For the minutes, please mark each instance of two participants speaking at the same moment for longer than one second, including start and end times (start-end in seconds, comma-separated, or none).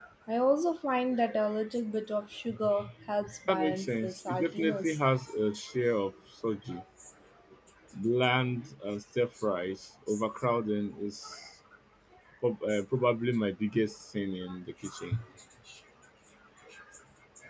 3.5-5.0